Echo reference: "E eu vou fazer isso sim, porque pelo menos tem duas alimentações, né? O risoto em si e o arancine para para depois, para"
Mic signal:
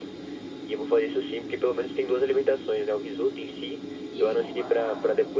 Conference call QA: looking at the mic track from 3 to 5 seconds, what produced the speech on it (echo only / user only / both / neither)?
both